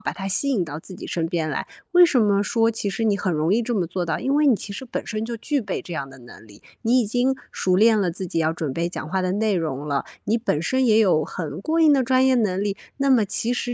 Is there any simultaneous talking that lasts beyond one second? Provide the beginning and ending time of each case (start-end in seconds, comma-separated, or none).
none